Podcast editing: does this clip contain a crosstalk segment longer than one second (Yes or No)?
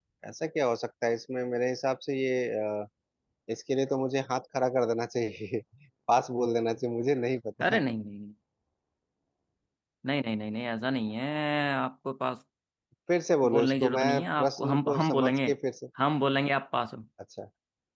Yes